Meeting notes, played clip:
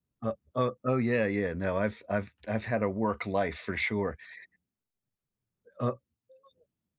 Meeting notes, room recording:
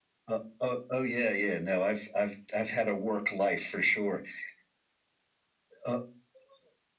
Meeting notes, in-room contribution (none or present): none